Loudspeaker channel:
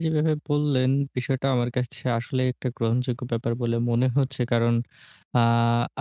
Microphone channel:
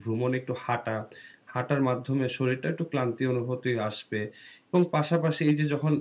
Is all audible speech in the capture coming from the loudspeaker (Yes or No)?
No